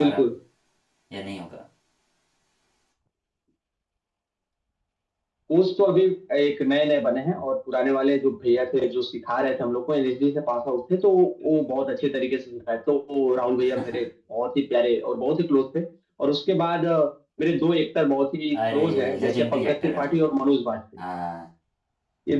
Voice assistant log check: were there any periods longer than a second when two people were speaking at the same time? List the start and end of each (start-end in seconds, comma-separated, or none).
18.7-20.1